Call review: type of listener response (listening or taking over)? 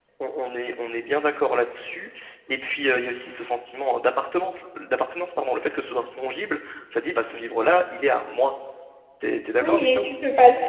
taking over